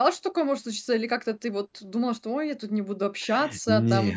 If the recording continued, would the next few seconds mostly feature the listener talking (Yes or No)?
No